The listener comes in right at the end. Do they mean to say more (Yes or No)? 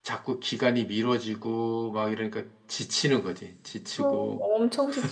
Yes